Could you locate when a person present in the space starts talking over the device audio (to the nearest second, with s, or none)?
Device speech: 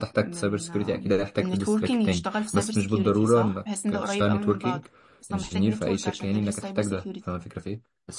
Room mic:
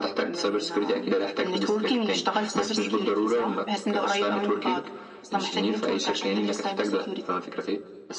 none